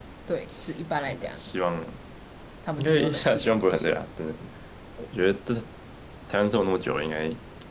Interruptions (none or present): present